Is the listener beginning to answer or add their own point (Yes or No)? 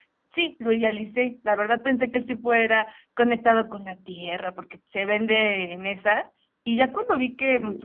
No